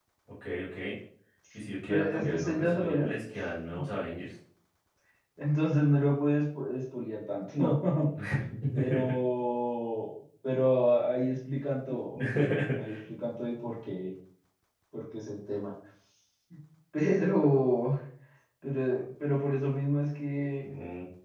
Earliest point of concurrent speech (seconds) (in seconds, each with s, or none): 1.9 s